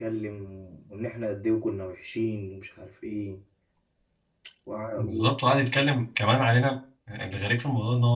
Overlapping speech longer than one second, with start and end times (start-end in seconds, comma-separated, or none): none